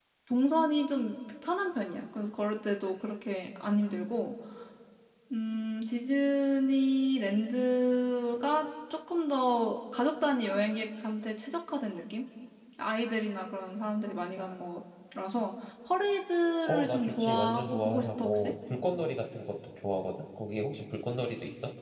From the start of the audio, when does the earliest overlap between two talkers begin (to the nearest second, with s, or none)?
17 s